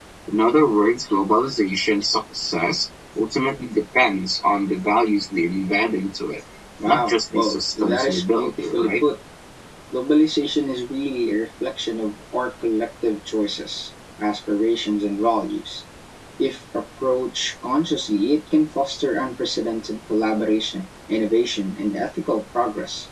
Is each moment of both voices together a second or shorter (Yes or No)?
No